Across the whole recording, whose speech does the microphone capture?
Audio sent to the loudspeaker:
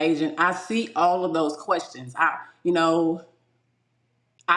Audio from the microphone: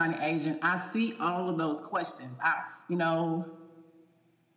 echo only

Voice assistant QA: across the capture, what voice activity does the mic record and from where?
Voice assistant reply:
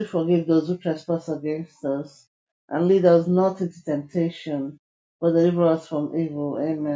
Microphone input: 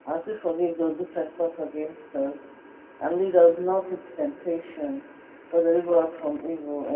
echo only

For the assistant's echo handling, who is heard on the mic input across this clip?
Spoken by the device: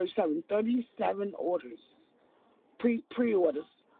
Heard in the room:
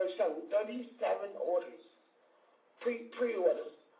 echo only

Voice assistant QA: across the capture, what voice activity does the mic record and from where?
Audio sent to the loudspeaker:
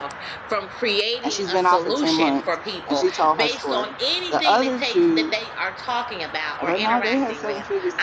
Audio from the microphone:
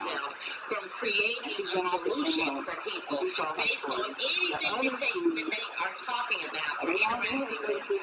echo only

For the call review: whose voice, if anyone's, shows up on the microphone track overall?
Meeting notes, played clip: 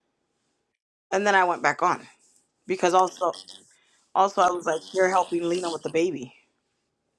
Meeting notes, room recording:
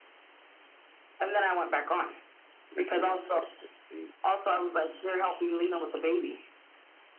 both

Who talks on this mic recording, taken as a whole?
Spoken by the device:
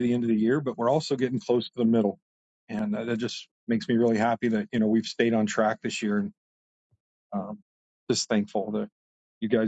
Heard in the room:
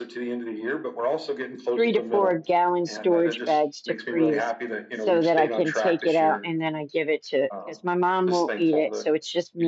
both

